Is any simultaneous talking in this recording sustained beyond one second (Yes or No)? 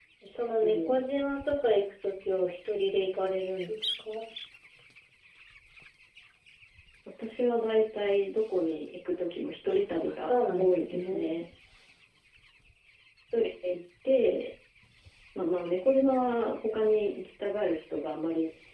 Yes